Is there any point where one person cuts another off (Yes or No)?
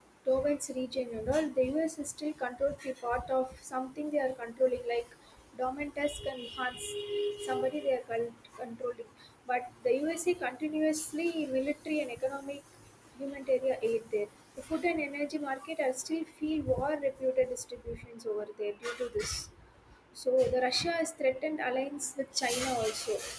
No